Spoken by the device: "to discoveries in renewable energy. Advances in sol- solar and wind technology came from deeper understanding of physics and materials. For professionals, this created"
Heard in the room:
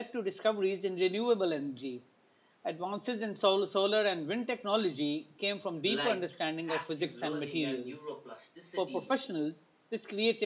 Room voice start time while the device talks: 5.8 s

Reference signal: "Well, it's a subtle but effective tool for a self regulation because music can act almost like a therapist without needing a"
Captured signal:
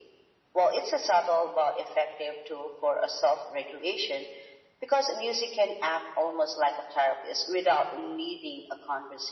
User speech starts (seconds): none

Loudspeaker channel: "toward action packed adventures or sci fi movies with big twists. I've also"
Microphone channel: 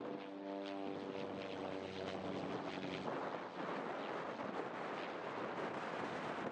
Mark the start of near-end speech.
none

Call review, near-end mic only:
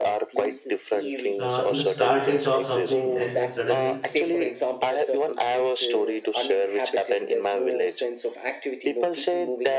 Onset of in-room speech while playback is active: 1.4 s

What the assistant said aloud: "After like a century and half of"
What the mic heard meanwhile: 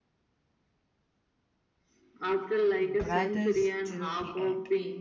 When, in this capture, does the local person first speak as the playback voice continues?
2.8 s

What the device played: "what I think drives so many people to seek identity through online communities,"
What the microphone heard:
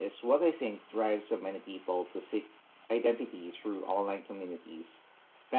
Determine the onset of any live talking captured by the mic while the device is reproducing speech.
none

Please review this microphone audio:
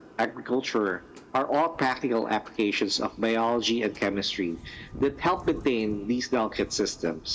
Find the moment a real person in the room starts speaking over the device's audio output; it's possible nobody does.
none

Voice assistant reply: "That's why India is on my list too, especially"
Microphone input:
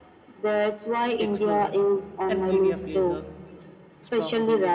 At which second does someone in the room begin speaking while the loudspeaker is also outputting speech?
1.2 s

